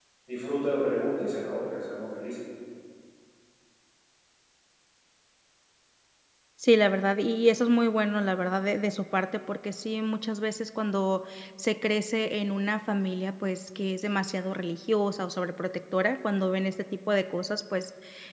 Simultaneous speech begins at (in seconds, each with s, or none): none